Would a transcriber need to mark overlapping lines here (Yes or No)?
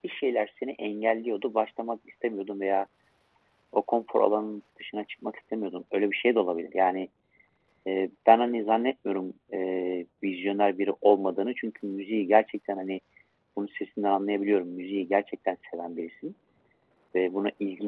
No